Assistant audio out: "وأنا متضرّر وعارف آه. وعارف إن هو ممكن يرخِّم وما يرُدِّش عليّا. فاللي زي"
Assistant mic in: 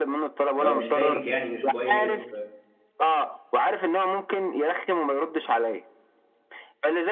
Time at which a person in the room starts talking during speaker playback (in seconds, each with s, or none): 0.6 s